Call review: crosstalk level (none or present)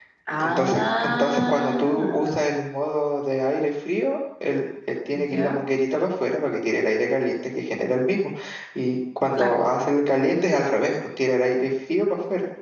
present